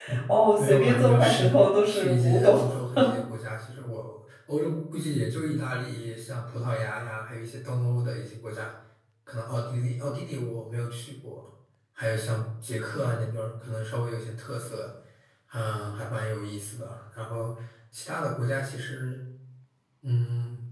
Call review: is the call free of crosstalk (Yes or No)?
No